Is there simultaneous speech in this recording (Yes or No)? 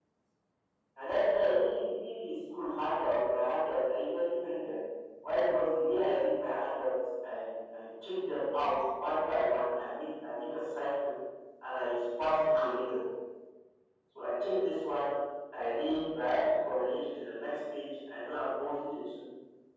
No